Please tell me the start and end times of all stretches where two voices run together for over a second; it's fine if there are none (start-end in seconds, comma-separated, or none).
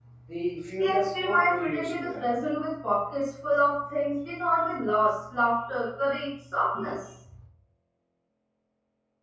0.8-2.3